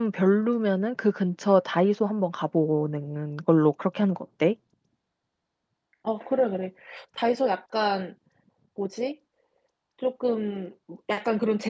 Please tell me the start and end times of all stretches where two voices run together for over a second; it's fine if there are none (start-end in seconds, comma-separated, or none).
none